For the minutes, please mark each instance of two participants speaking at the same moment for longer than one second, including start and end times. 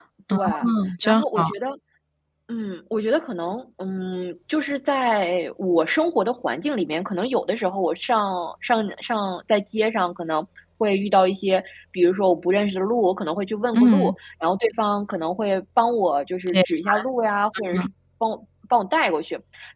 none

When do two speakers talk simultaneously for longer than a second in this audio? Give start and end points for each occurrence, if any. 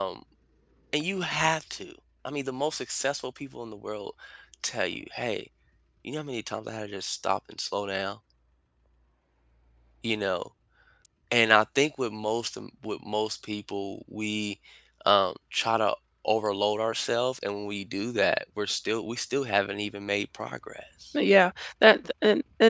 none

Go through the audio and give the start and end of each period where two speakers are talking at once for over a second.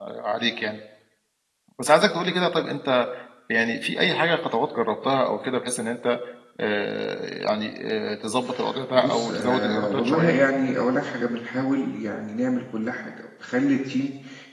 8.9-10.3

